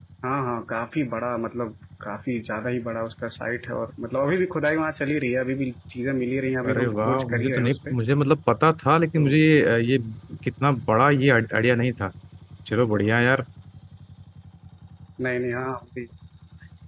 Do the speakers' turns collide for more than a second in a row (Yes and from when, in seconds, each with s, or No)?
Yes, from 6.7 s